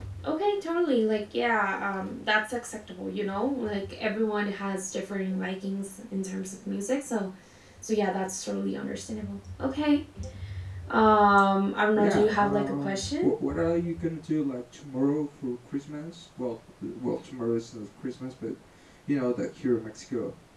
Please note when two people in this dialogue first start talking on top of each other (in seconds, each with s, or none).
11.9 s